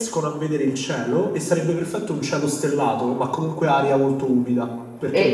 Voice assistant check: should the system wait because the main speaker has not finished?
No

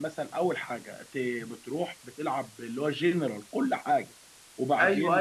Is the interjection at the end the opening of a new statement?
Yes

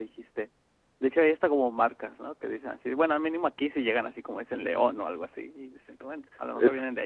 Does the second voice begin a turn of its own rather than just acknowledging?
Yes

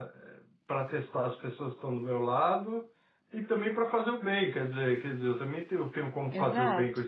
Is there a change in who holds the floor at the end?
Yes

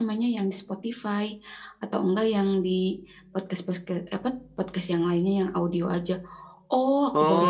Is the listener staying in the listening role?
No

